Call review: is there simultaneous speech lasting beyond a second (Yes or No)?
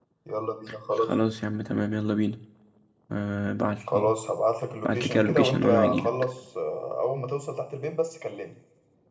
Yes